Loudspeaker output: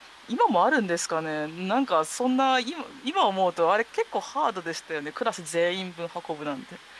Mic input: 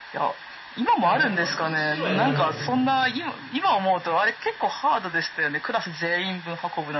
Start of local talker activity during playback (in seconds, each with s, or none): 1.0 s